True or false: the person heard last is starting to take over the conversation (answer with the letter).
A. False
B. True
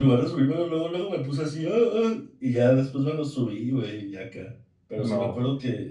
A